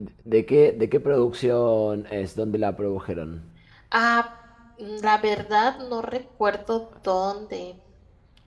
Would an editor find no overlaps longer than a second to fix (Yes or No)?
Yes